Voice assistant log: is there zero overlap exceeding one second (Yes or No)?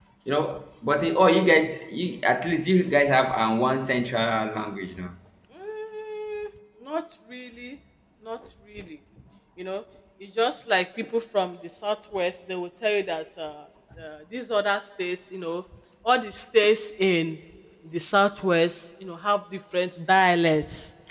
Yes